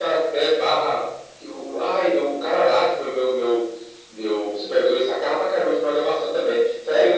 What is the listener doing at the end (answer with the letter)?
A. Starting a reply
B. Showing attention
B